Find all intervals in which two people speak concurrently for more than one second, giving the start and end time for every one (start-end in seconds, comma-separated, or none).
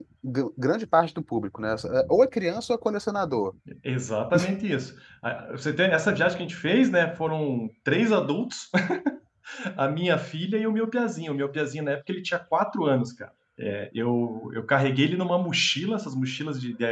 none